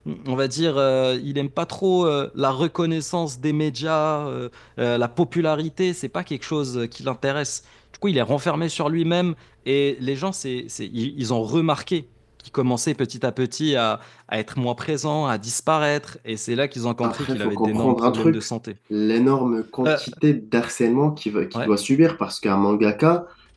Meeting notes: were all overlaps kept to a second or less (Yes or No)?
No